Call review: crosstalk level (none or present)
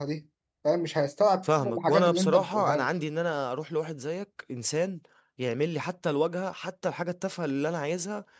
present